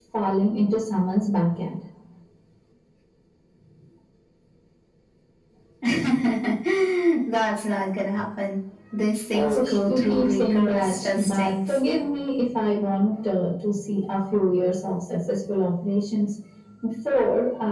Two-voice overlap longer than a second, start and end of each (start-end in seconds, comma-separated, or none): 9.3-11.8